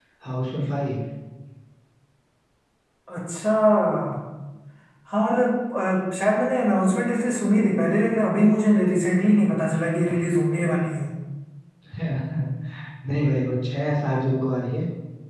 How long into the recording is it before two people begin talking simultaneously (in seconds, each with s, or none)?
none